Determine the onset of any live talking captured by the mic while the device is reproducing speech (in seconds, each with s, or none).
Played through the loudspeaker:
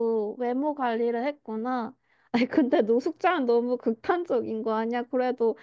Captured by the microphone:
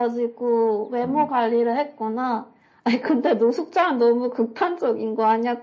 1.0 s